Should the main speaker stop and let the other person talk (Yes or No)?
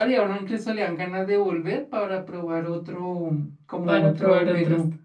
Yes